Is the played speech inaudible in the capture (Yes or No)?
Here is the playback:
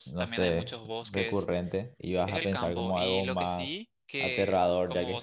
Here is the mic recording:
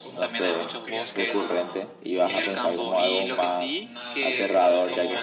No